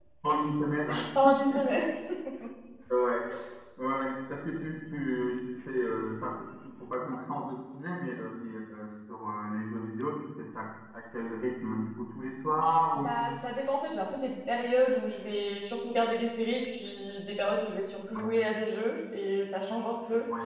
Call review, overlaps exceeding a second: none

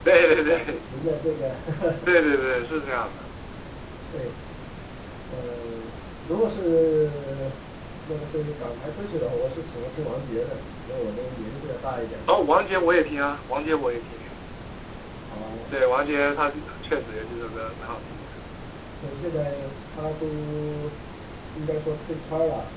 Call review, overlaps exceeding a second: none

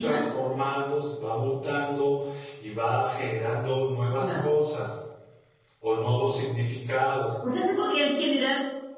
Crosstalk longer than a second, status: none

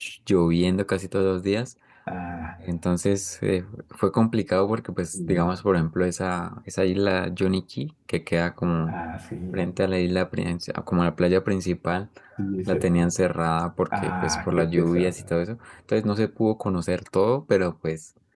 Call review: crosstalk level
present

